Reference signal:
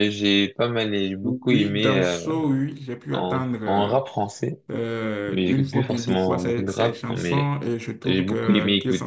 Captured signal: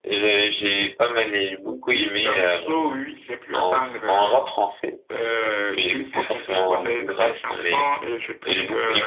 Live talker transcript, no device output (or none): none